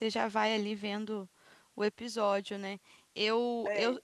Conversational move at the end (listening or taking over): listening